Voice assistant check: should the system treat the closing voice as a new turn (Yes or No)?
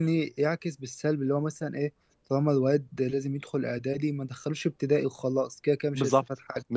Yes